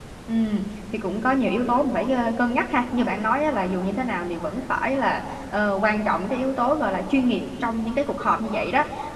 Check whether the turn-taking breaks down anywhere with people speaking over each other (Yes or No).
No